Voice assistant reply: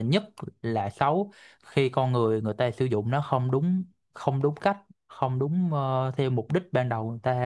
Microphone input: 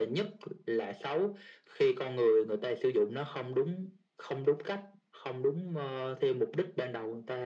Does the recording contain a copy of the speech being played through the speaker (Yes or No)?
Yes